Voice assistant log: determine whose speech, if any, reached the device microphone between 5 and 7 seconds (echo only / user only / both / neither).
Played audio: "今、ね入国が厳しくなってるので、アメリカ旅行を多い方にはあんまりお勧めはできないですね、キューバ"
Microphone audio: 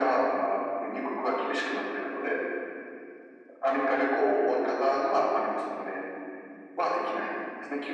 echo only